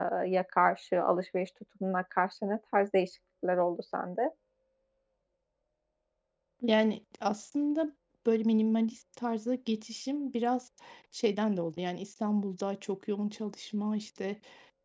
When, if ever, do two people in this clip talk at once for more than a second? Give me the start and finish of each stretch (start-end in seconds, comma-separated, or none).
none